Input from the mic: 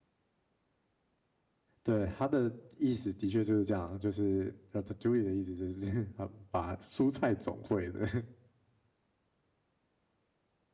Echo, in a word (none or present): none